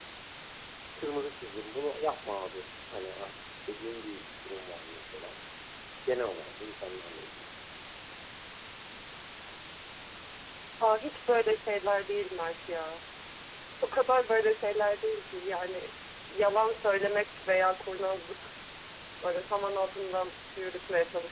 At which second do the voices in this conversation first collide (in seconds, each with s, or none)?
none